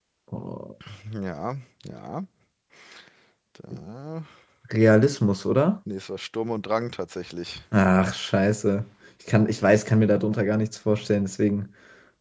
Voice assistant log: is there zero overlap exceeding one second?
Yes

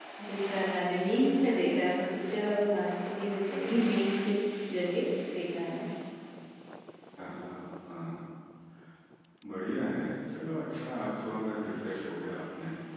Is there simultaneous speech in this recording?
No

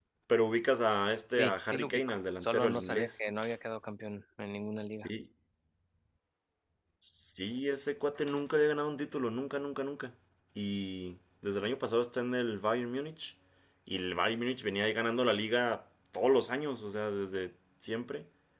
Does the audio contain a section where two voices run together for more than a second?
Yes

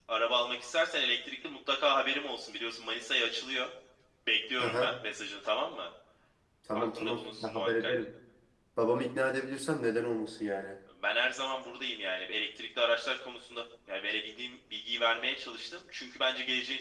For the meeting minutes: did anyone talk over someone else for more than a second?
Yes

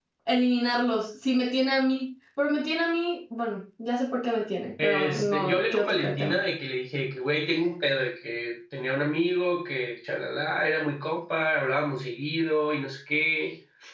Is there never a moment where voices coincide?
No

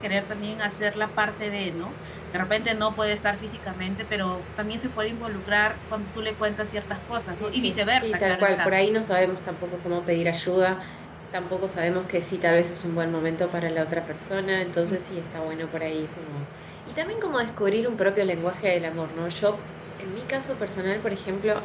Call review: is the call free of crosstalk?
No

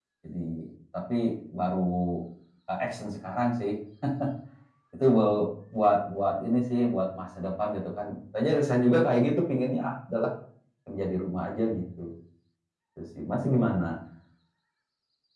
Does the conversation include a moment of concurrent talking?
No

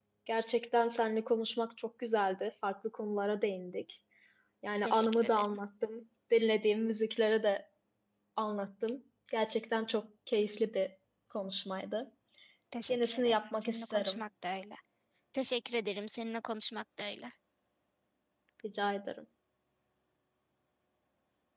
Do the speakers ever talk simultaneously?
Yes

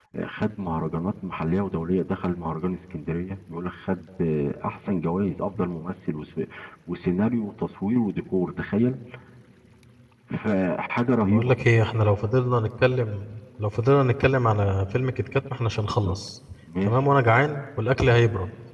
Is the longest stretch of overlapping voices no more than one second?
Yes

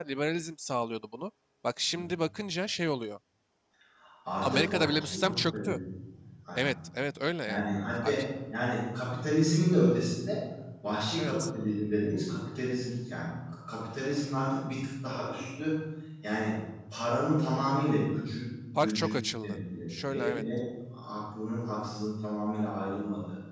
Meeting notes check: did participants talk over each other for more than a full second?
Yes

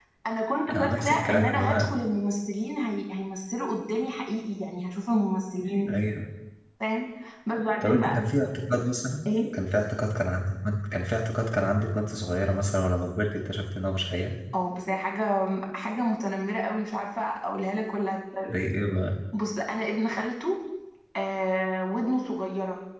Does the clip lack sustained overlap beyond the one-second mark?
No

